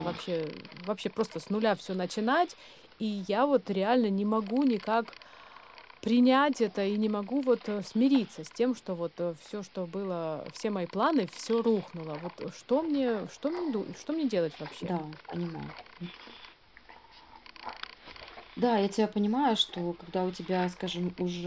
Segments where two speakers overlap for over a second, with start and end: none

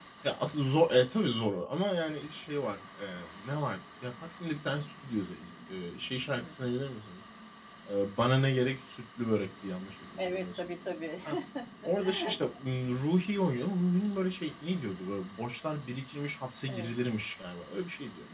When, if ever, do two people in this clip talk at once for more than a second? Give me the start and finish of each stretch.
none

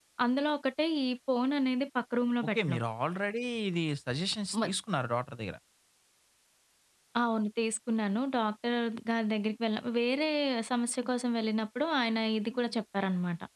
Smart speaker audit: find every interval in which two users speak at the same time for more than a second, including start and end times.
none

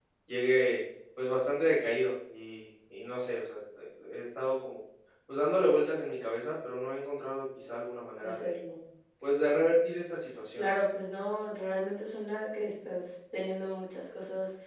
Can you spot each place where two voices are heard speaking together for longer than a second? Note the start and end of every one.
none

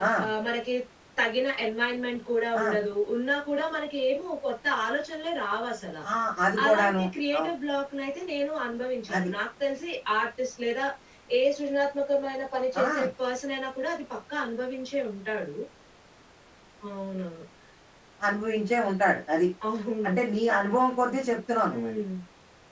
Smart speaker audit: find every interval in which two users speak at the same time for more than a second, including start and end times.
none

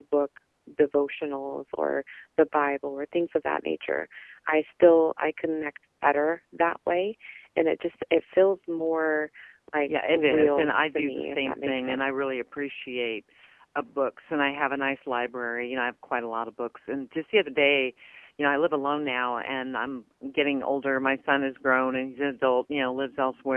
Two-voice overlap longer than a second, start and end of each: 9.9-12.1

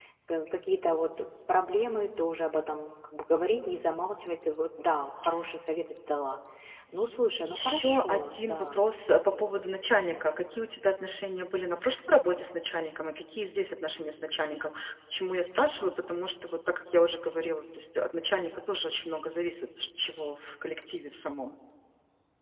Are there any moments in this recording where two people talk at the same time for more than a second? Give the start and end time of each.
7.5-8.8

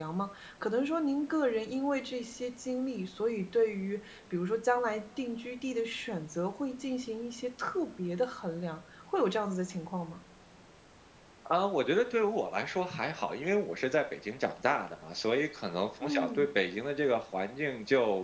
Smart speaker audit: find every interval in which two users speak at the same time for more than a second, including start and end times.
none

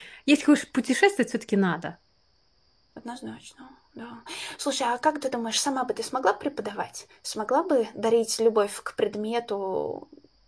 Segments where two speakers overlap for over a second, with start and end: none

